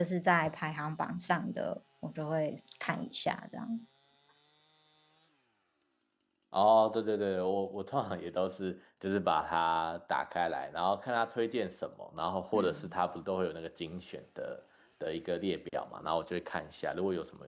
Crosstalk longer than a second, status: none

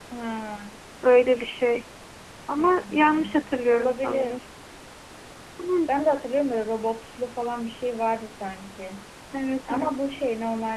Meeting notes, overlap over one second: present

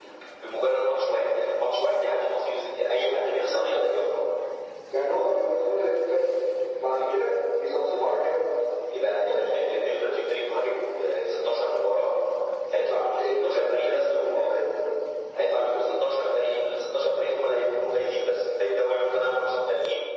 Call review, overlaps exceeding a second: present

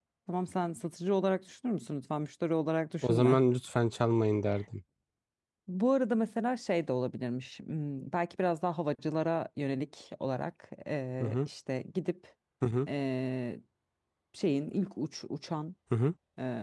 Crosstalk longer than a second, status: none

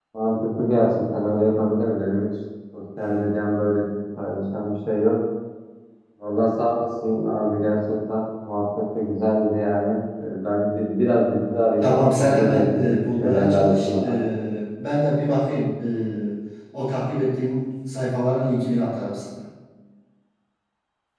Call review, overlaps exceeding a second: present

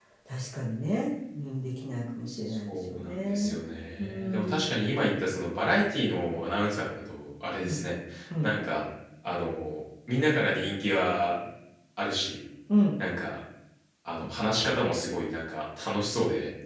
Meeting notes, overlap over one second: present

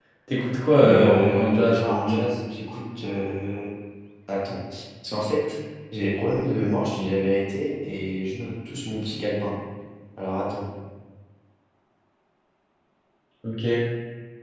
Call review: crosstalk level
present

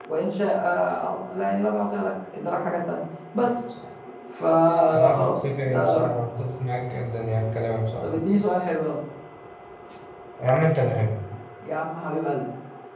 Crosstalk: present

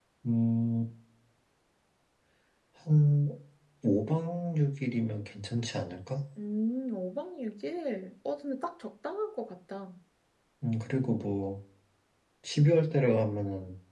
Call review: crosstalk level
none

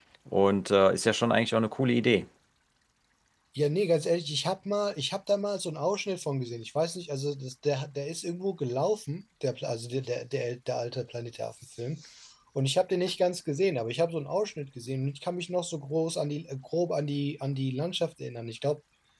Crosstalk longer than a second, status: none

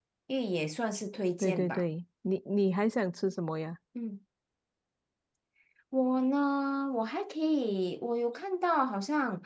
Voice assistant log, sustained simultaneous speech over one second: none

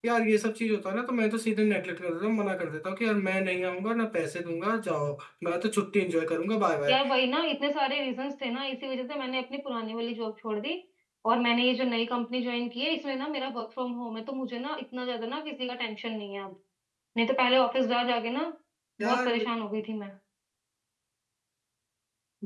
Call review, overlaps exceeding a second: none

